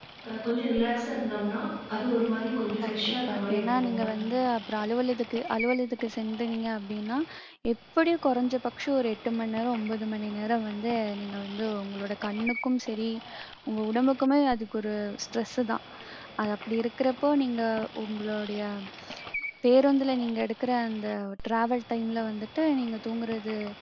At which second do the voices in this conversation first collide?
2.8 s

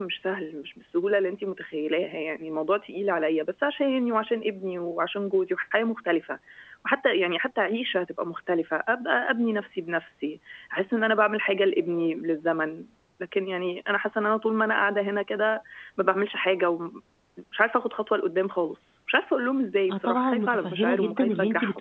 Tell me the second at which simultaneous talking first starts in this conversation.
19.9 s

